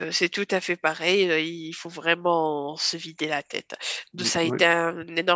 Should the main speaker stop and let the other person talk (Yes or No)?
No